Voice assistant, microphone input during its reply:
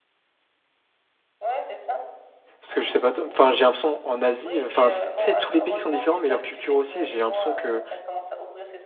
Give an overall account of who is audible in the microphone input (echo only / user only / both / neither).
both